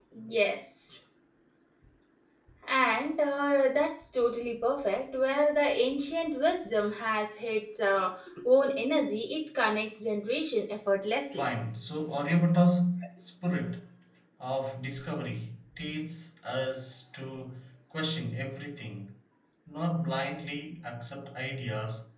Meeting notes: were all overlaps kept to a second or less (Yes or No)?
Yes